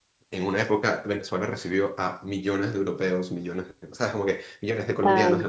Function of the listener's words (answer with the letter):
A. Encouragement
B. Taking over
A